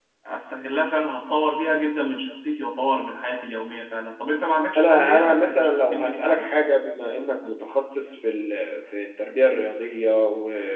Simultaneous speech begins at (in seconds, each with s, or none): 4.8 s